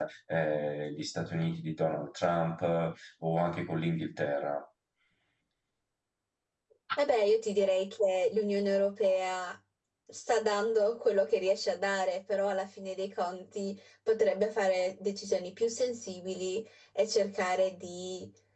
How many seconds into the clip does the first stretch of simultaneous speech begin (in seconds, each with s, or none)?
none